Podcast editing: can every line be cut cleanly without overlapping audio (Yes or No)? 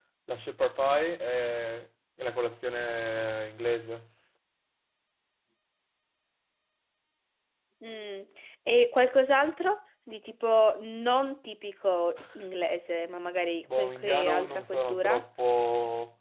No